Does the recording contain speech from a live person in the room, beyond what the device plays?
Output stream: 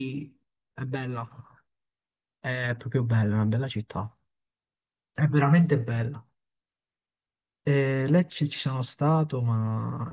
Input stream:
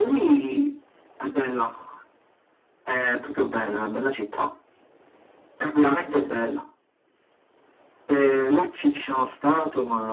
No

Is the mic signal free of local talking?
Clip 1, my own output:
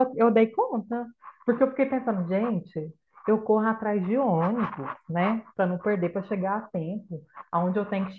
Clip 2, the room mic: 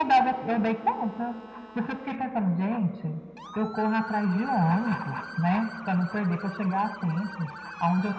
Yes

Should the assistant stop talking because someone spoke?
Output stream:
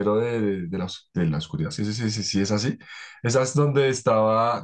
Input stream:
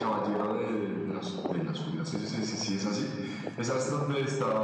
No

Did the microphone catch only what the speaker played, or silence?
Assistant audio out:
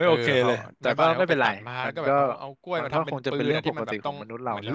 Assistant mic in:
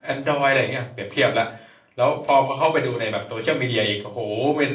No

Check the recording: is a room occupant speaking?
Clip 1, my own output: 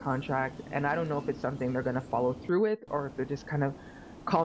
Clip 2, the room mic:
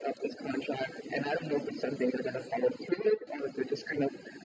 No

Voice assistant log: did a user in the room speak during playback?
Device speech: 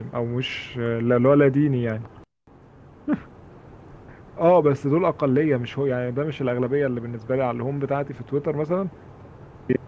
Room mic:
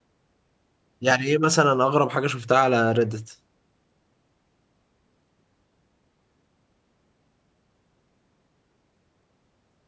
Yes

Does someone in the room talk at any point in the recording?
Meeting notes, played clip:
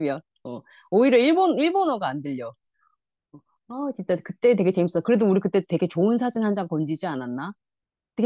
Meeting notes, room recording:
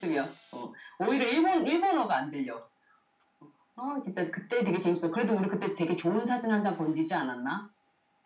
No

